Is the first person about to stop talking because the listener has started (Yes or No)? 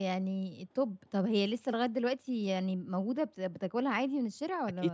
Yes